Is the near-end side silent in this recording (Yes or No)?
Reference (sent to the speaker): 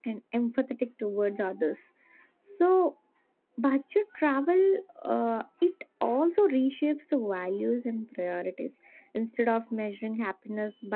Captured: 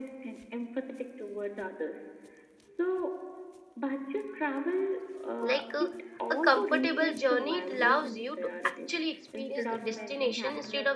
No